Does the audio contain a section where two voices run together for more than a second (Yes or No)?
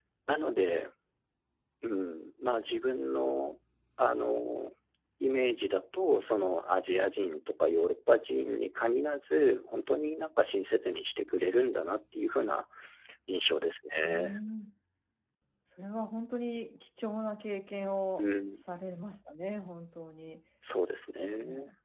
No